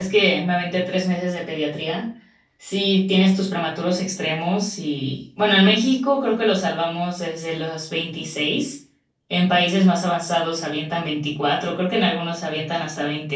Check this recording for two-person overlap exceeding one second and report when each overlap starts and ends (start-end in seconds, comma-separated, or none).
none